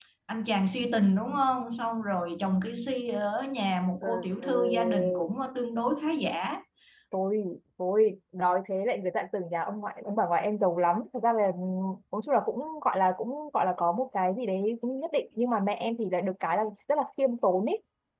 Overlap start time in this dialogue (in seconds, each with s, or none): 4.0 s